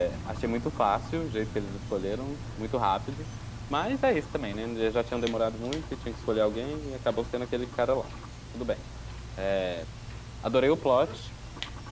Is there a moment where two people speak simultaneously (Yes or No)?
No